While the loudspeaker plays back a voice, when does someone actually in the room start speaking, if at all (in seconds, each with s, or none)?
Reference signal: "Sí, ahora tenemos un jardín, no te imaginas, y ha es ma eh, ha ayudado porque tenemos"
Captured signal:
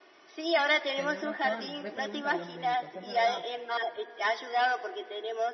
0.9 s